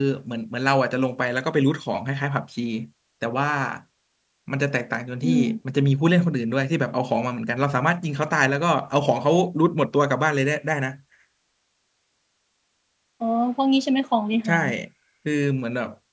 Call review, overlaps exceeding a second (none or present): none